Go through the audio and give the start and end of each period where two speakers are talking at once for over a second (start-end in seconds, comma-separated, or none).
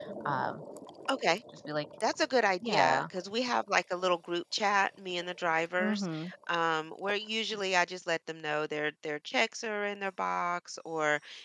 none